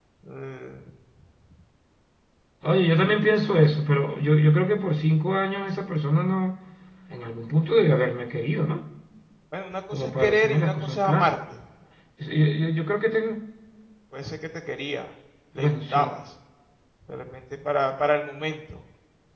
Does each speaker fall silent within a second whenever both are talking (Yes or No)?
No